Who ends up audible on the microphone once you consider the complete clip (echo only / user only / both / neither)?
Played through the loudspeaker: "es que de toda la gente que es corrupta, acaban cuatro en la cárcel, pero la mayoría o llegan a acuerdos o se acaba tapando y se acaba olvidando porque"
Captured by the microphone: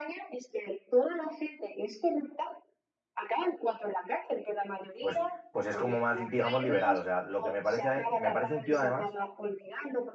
both